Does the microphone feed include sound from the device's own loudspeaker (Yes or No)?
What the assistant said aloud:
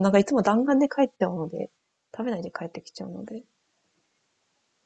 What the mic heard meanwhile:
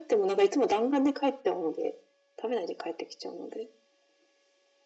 Yes